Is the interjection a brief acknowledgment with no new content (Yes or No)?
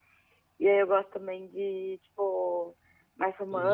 Yes